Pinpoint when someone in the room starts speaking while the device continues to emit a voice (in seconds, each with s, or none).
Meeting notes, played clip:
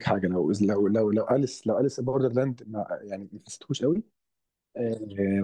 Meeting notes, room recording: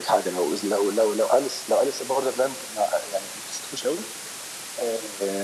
none